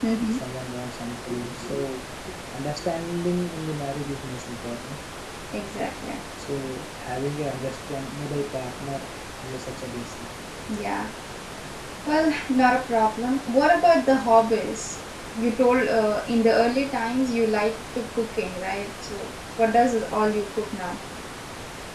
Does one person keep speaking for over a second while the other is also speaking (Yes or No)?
No